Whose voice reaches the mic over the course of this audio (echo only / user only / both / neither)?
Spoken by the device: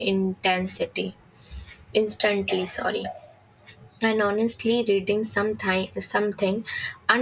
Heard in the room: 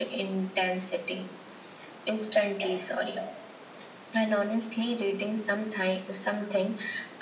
echo only